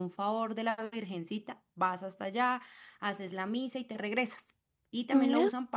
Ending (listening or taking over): listening